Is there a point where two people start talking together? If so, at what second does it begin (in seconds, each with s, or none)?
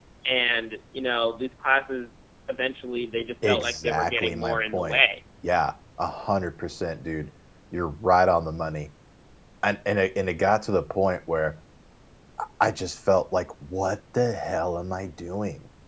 3.4 s